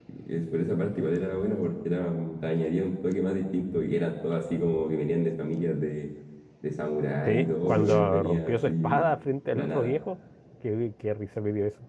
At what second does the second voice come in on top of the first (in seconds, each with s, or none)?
7.2 s